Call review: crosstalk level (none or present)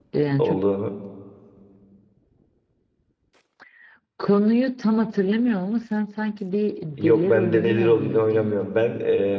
present